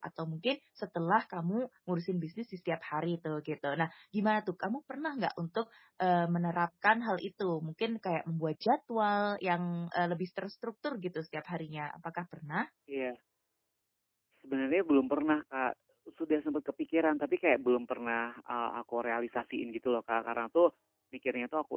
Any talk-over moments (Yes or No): No